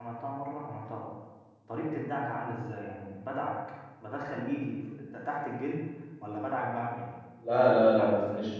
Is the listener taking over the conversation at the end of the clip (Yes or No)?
Yes